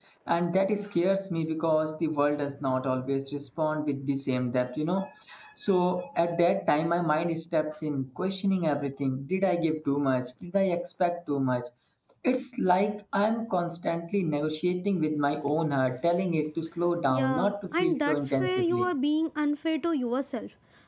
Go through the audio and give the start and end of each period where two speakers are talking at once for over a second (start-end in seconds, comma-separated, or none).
17.1-18.9